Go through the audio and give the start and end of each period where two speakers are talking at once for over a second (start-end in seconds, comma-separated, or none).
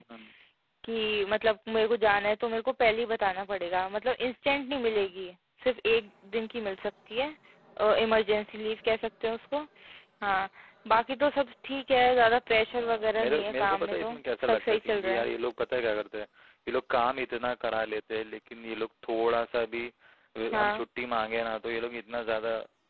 12.8-15.2